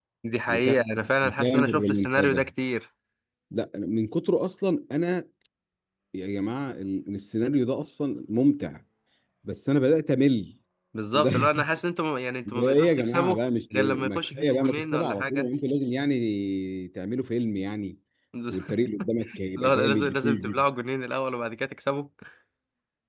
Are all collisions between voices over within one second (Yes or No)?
No